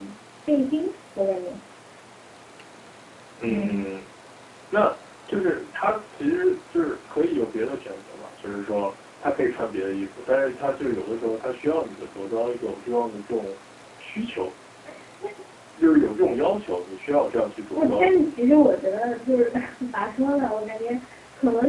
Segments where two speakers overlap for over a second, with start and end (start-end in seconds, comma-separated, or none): none